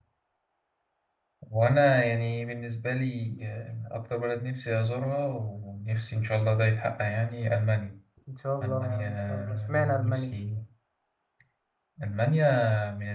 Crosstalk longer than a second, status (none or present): present